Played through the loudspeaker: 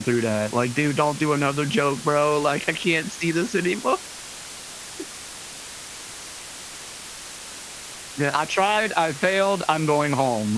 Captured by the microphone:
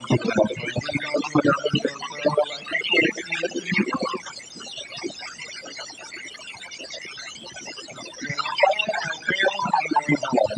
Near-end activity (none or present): none